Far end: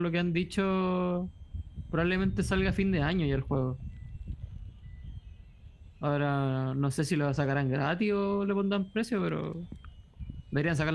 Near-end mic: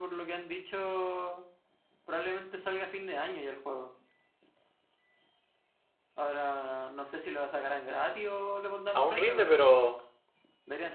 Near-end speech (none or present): present